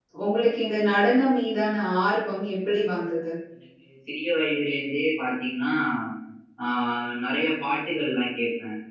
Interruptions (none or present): none